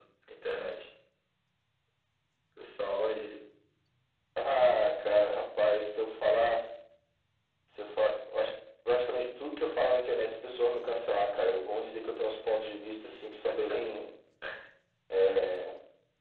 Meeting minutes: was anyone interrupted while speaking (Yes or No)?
No